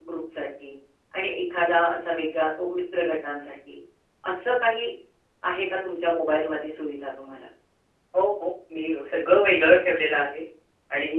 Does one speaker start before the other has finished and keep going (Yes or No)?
No